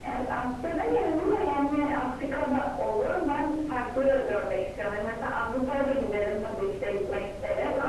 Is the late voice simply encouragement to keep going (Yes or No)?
Yes